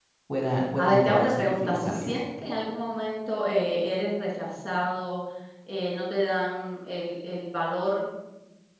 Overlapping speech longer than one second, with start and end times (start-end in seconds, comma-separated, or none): 0.8-2.1